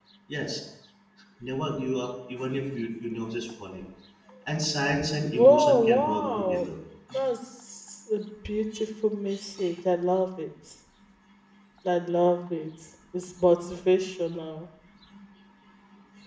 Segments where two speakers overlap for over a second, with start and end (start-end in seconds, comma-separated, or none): 5.3-6.7